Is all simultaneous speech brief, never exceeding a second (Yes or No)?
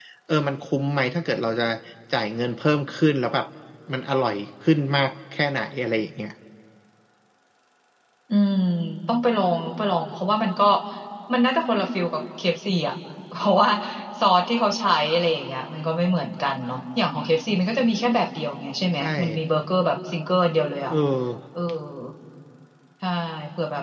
Yes